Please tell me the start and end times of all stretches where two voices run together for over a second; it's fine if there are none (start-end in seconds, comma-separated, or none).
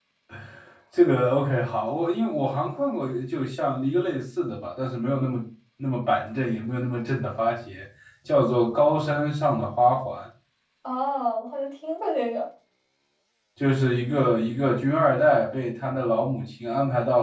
none